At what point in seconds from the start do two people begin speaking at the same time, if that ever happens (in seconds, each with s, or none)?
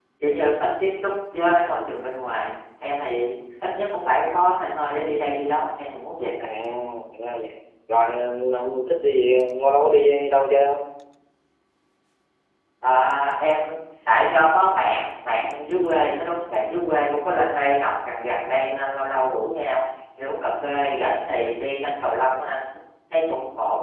none